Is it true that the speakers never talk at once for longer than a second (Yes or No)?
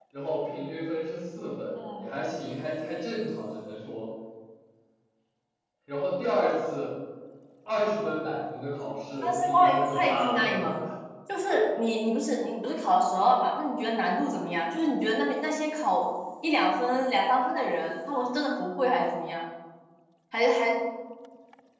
No